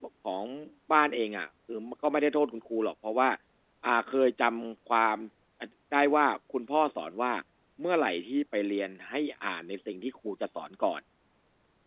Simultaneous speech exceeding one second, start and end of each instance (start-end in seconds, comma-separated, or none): none